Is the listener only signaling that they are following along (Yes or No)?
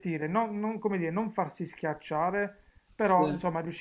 Yes